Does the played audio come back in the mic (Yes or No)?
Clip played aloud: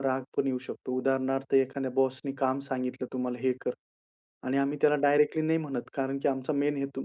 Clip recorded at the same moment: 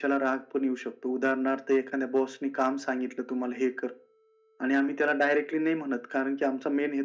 Yes